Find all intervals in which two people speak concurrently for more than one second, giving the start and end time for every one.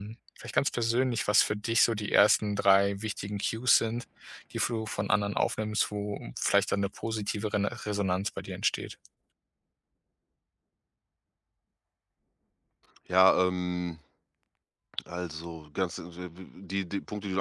none

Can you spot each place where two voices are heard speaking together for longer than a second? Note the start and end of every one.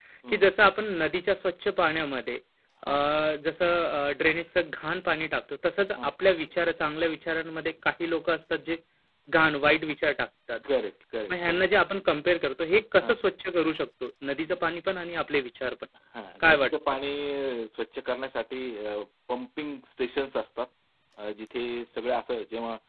none

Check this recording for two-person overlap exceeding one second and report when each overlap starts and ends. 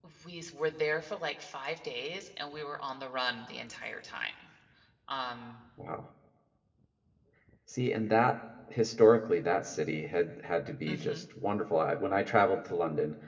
none

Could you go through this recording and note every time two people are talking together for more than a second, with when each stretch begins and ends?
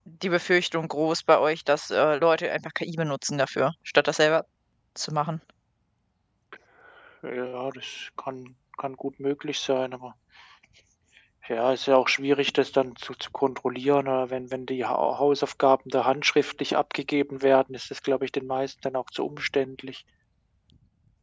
none

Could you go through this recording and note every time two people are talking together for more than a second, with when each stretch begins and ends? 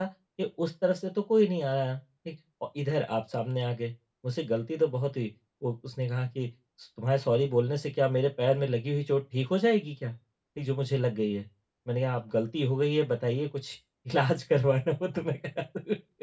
none

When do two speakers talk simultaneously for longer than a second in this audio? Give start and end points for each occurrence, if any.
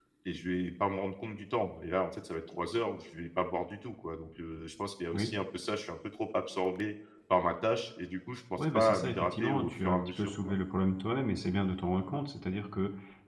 8.6-10.5

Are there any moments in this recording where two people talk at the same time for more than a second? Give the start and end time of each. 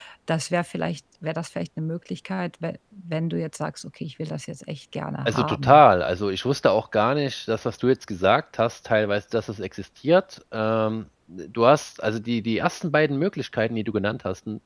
none

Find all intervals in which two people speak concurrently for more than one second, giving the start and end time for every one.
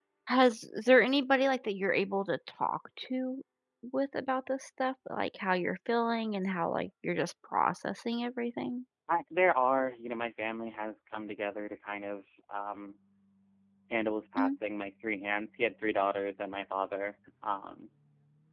none

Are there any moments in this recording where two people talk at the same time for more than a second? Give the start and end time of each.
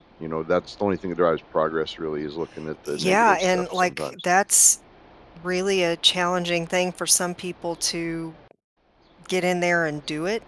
2.9-4.1

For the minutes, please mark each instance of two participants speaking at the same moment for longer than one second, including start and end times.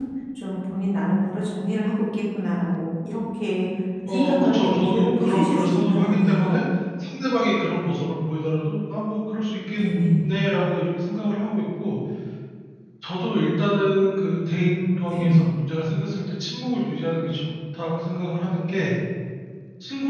4.1-6.6

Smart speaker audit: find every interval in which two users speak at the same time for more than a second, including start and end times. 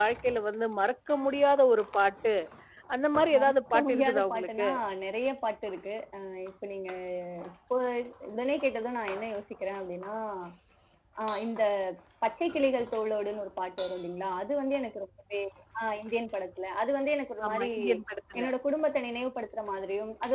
3.4-4.7

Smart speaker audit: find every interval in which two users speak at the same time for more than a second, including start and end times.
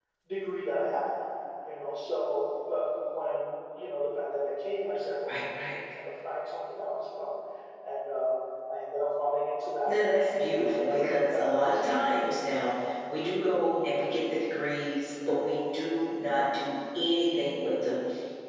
10.8-12.2

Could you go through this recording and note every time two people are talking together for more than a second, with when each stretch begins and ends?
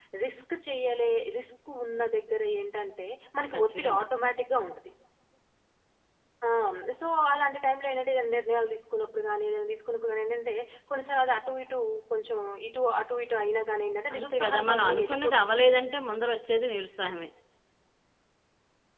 14.1-15.5

